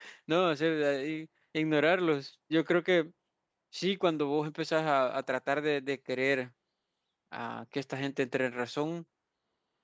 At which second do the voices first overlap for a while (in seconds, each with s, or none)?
none